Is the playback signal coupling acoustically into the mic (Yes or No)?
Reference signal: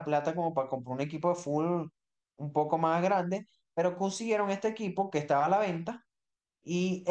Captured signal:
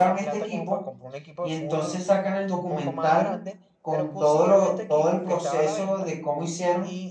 Yes